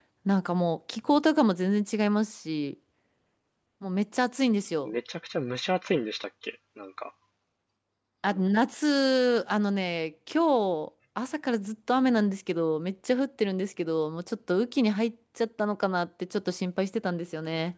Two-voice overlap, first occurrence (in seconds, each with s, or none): none